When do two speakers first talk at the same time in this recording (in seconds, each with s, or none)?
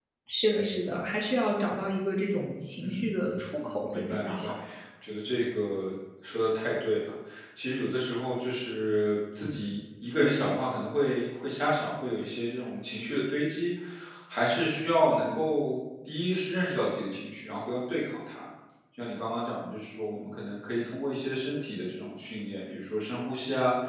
2.8 s